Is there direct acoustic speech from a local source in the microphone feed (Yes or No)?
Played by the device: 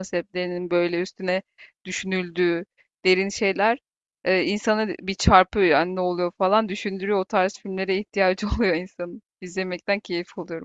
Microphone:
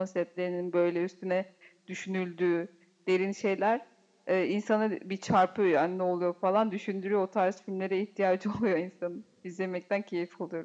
No